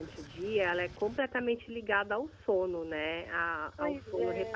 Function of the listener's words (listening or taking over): listening